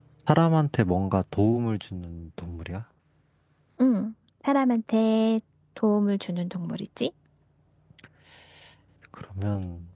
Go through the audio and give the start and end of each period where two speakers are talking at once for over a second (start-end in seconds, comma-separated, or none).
none